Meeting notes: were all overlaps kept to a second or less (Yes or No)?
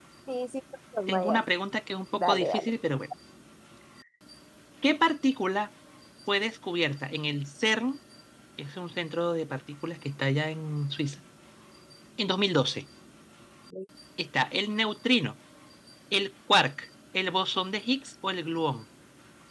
Yes